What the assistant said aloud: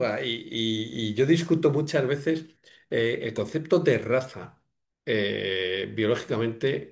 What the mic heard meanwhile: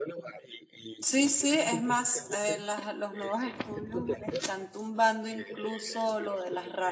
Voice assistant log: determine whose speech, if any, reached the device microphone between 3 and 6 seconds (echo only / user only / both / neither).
both